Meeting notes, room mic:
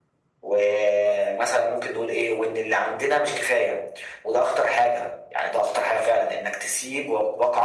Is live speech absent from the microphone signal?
Yes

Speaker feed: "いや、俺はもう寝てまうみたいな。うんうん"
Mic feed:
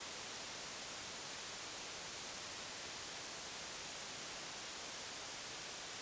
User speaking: No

